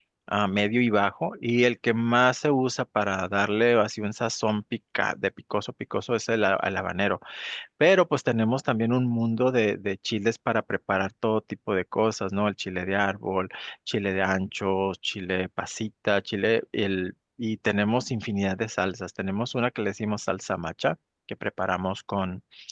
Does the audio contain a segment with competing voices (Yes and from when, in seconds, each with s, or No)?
No